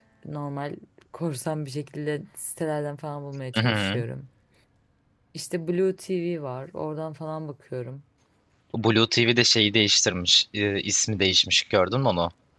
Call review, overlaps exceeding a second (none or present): none